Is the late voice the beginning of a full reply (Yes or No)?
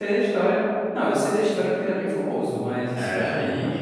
Yes